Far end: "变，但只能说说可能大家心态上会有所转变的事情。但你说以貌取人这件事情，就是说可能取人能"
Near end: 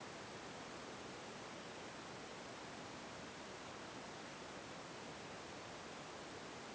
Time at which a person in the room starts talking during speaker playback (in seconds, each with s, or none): none